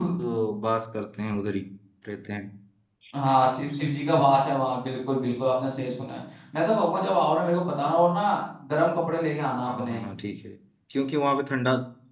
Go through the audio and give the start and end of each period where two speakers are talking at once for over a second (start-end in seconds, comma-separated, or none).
none